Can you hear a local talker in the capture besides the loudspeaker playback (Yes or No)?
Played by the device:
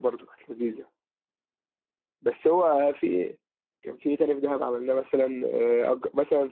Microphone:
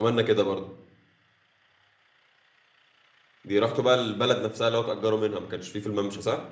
Yes